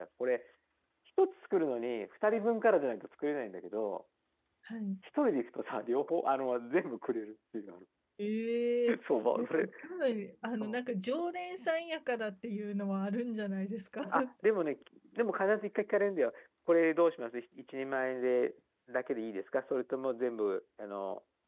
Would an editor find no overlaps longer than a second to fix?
Yes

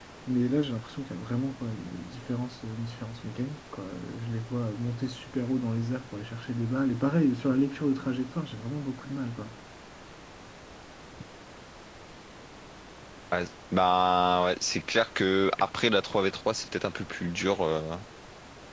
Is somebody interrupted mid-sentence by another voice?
No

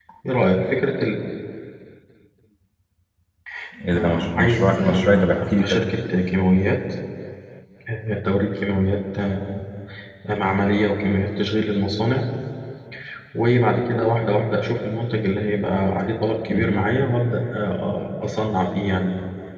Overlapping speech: Yes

